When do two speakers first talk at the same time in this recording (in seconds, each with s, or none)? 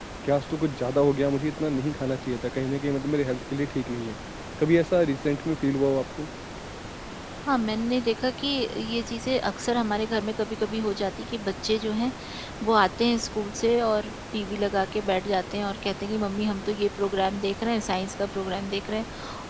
none